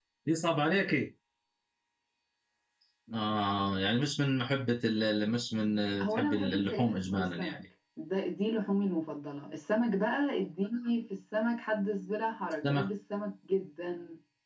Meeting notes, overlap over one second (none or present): present